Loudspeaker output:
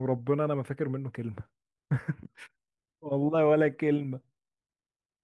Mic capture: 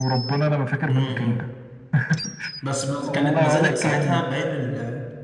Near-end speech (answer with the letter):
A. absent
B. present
B